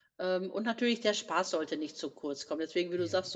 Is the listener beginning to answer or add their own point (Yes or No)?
No